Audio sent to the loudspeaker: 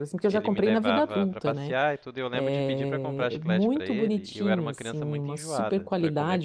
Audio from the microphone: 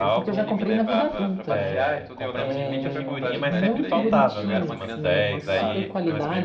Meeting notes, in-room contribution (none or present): present